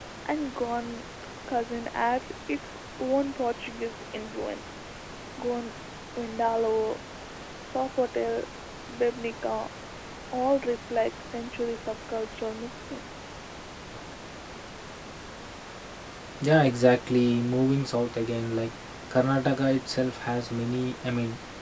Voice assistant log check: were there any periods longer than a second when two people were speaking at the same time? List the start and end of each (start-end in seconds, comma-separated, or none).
none